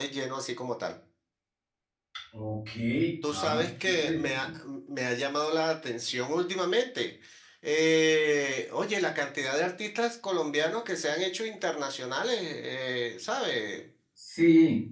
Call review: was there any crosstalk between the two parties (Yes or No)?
Yes